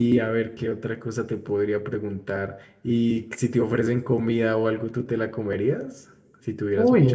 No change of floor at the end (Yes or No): No